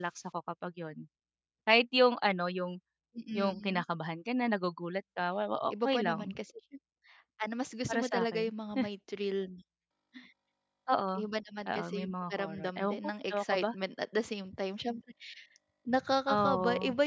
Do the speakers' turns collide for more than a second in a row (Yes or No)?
Yes